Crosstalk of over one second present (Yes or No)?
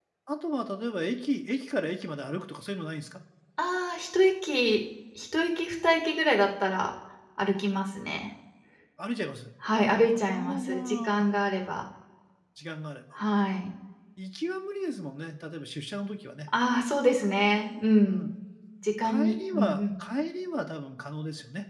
Yes